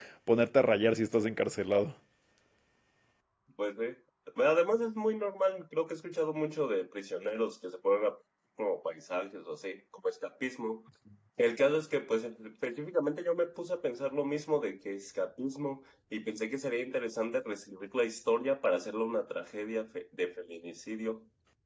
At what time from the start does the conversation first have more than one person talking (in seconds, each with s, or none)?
none